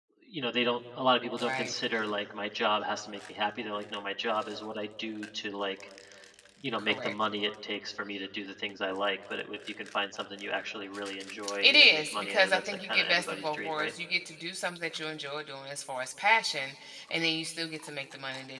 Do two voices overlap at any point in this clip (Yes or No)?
Yes